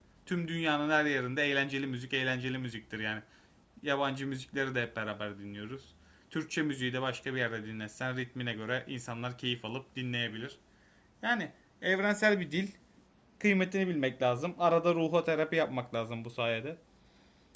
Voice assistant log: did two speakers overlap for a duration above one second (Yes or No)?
No